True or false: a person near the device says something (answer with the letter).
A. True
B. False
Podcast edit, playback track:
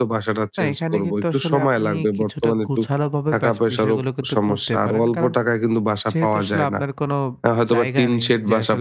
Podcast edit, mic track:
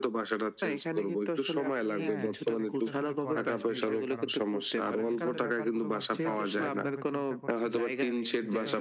A